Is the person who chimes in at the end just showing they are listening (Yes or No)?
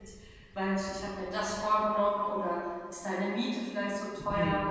No